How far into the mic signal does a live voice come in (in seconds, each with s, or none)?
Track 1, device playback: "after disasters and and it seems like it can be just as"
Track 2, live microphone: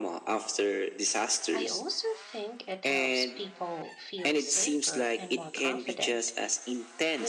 1.5 s